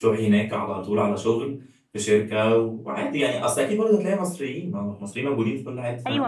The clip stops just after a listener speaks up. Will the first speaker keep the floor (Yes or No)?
No